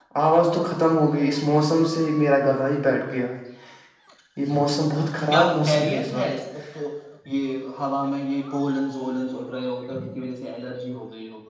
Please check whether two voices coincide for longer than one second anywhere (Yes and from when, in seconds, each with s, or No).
Yes, from 4.7 s